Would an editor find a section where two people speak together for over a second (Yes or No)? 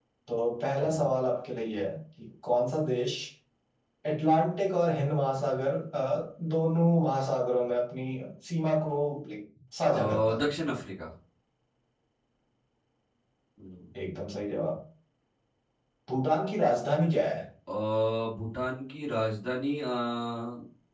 No